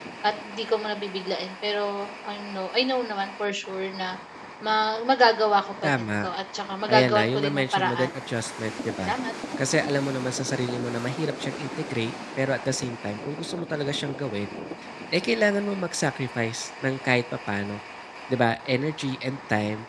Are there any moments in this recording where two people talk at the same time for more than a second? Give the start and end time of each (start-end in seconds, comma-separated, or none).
6.9-8.1